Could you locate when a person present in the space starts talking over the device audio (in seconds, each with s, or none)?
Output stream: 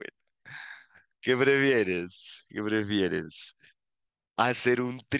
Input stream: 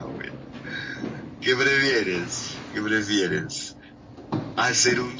none